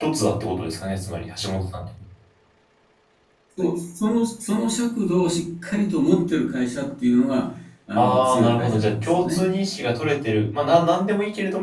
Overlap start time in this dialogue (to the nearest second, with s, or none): 8 s